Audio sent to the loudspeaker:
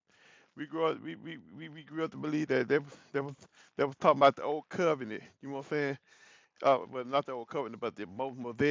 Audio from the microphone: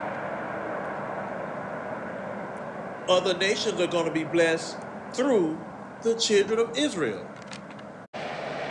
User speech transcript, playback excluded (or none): Other nations are going to be blessed through the children of Israel.